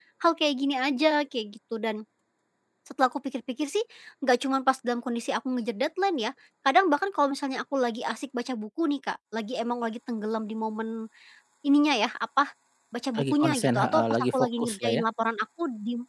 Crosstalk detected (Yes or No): Yes